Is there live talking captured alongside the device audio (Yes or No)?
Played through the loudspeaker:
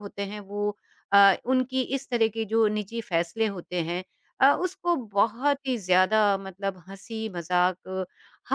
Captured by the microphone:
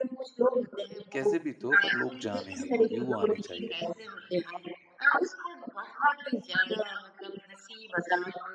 Yes